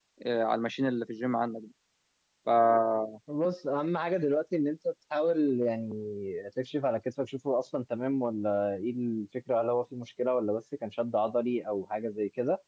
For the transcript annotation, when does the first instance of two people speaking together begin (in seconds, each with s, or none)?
none